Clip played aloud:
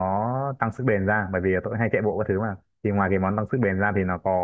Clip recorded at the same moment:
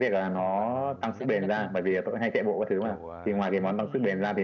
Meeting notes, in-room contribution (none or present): present